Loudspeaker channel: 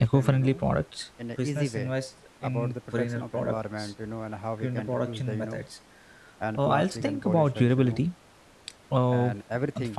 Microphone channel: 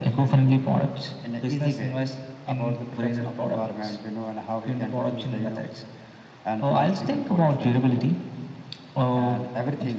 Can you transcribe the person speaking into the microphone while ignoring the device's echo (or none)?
none